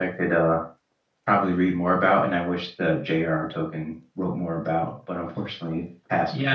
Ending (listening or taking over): taking over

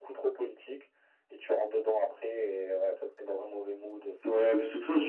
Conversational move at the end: taking over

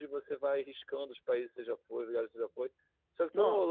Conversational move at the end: listening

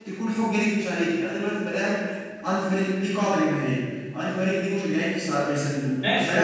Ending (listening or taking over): taking over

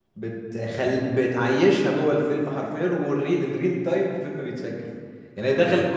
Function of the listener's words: listening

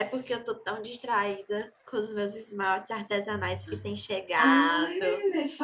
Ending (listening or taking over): taking over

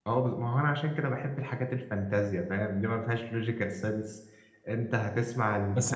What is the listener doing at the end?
taking over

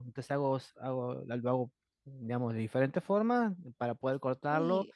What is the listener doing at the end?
listening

